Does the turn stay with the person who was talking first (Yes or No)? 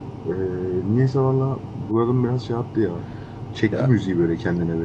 No